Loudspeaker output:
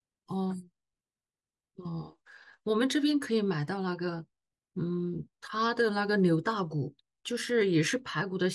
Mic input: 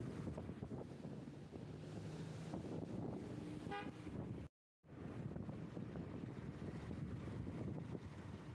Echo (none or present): none